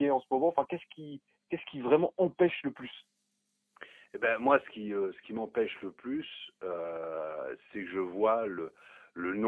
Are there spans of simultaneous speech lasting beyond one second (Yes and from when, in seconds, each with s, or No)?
No